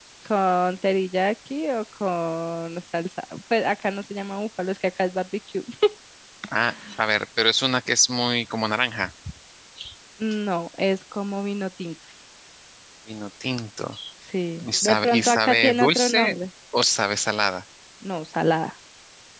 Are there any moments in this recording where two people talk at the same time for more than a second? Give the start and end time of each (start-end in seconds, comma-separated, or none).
14.8-16.4